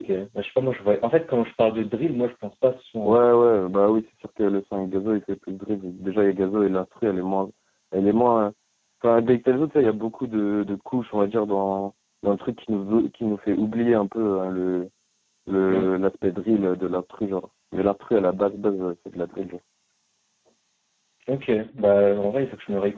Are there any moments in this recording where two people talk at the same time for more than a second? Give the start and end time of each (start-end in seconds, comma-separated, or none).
none